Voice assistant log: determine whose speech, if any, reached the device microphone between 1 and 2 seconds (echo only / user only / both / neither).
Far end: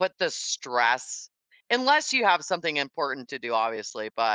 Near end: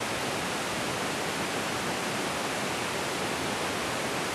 neither